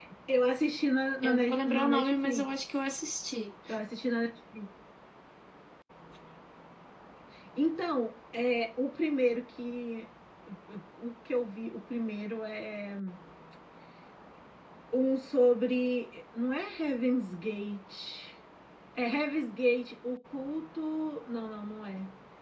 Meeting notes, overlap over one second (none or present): present